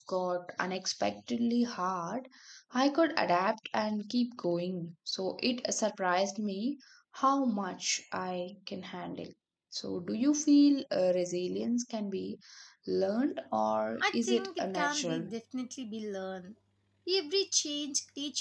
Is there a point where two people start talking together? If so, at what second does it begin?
14.0 s

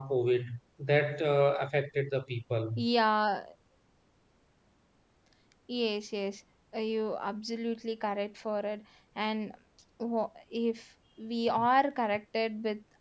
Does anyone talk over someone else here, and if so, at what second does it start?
none

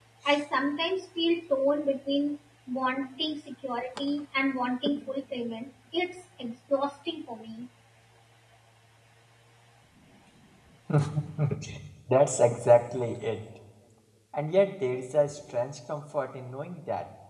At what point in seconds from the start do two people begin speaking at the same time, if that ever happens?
none

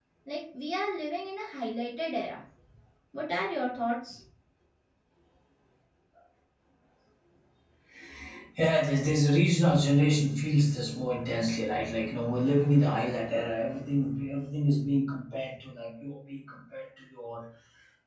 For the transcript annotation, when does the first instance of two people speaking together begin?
none

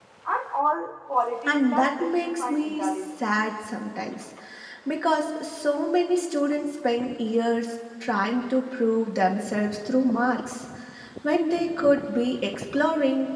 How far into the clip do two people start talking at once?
1.5 s

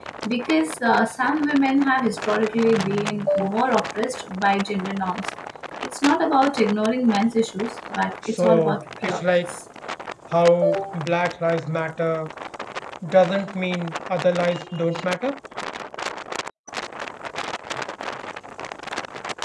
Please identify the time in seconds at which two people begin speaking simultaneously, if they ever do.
8.3 s

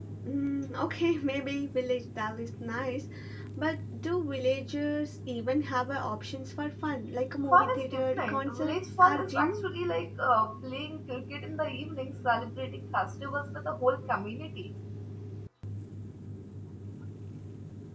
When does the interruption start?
7.5 s

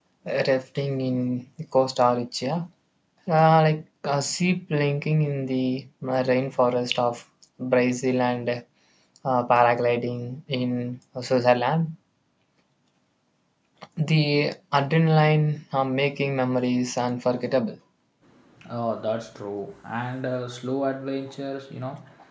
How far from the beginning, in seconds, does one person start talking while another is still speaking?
none

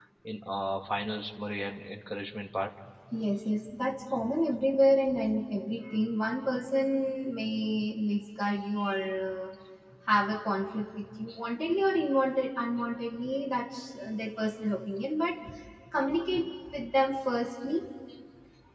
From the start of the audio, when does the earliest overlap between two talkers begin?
none

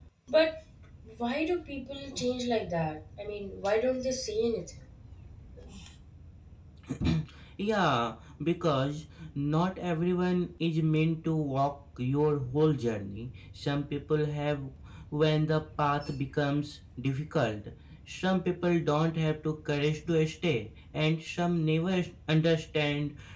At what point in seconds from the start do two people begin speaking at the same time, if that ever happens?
none

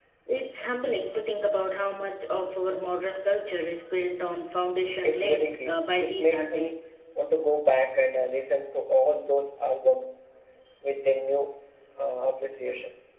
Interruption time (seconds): 5.0 s

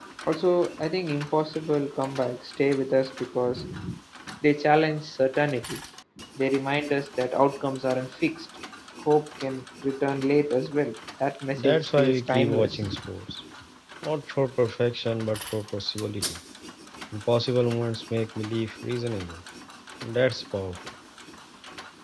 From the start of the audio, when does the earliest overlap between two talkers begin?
11.6 s

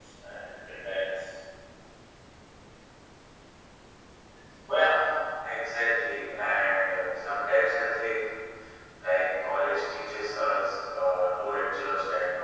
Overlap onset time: none

